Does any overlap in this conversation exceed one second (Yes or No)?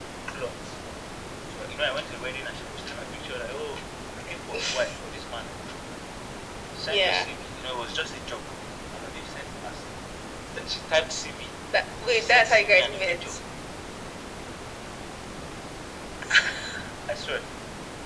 Yes